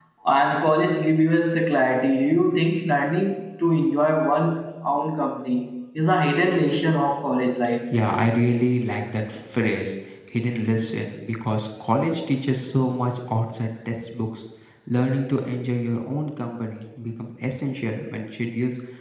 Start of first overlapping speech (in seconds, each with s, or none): none